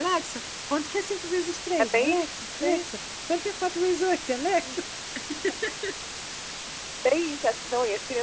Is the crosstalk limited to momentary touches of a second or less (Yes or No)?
Yes